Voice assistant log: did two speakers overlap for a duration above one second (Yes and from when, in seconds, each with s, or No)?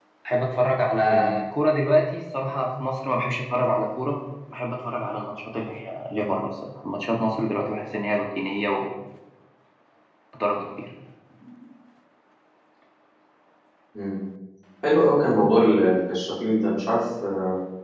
No